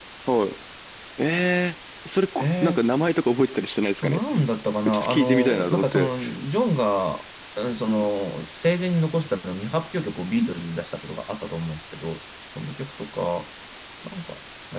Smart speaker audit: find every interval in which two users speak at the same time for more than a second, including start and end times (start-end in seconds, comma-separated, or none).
4.9-6.1